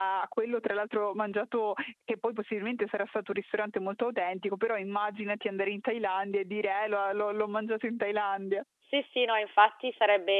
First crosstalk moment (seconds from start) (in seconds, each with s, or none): none